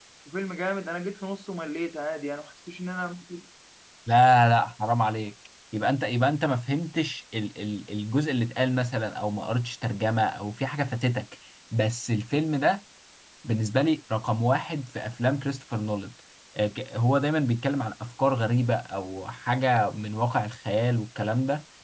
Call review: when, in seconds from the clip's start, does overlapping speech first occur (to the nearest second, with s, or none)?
none